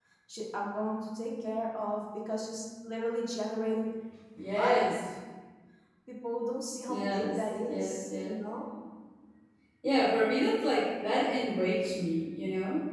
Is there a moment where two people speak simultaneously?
Yes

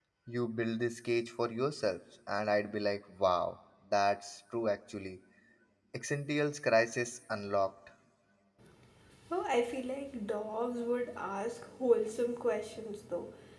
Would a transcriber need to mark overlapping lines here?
No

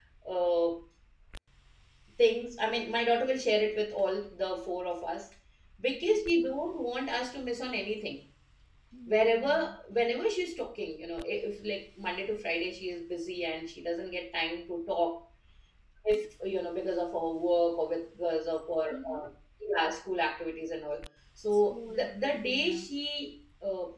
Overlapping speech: Yes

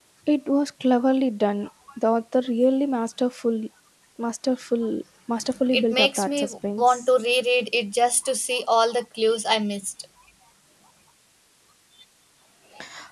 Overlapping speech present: Yes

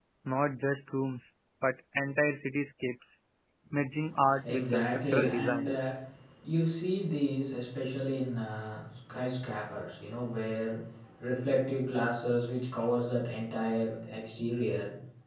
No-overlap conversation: No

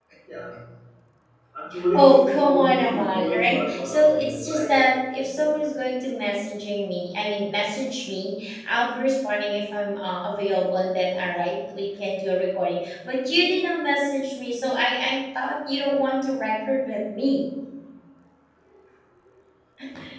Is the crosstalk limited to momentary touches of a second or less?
No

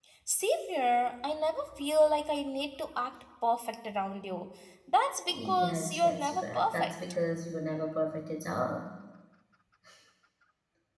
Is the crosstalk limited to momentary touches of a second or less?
No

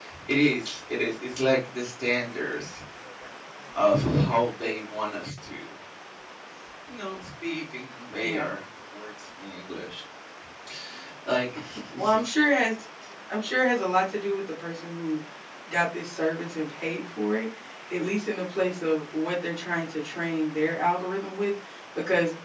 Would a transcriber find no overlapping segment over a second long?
Yes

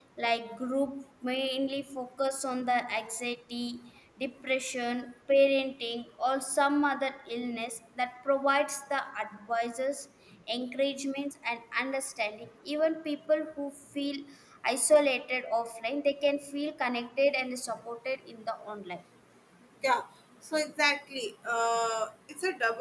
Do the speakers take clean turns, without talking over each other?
Yes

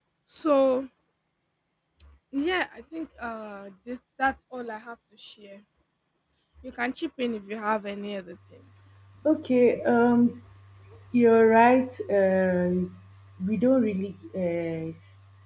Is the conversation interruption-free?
Yes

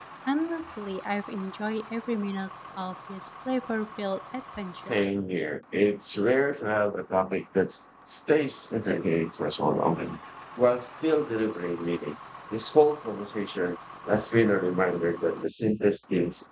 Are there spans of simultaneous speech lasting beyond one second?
No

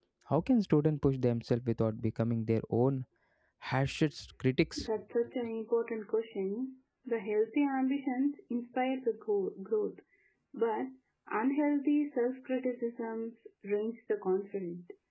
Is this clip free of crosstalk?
Yes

